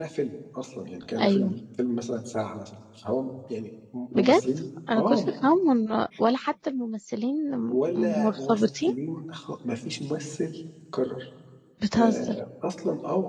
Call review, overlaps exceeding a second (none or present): present